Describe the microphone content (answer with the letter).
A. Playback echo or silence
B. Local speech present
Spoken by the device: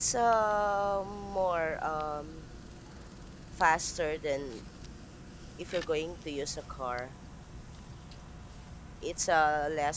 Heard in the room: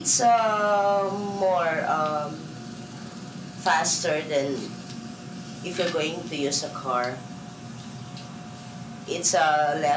A